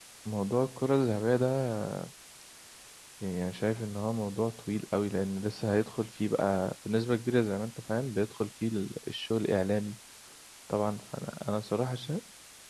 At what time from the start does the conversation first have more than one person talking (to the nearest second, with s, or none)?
none